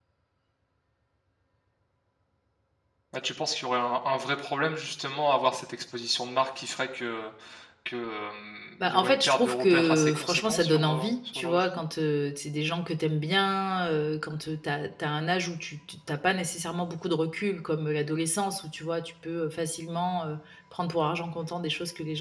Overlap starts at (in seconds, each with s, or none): 8.8 s